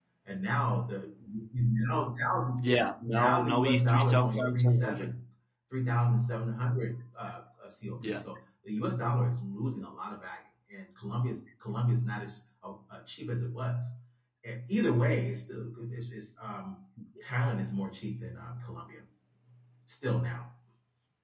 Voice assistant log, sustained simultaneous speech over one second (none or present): present